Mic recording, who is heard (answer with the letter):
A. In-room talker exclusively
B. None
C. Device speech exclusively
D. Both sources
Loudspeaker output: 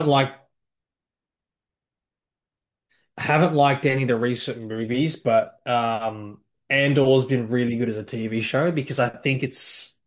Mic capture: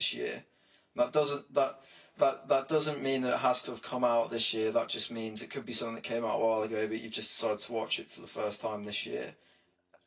A